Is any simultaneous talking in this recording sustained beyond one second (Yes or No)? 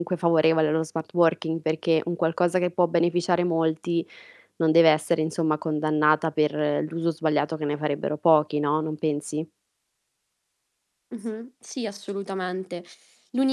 No